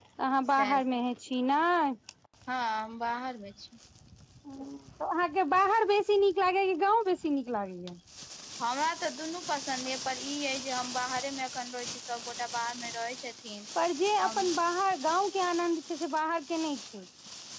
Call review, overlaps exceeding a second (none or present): none